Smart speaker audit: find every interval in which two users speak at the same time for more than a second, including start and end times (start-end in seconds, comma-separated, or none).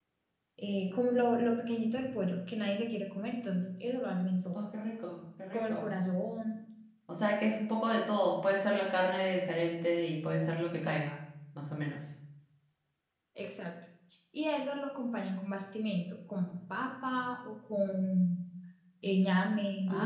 none